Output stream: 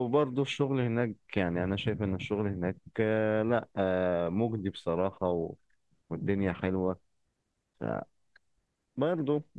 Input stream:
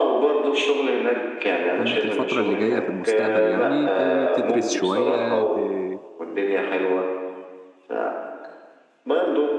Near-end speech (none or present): present